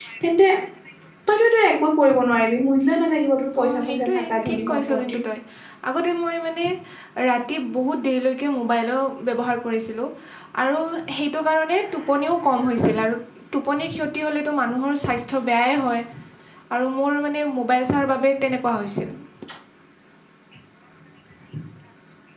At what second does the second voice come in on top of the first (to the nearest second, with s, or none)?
4 s